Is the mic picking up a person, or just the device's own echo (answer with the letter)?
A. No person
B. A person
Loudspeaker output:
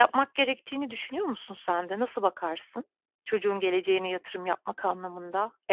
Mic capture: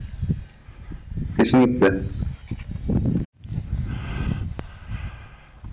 B